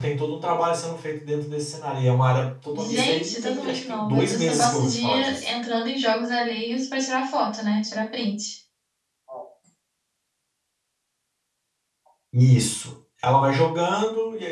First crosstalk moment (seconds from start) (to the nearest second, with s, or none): 3 s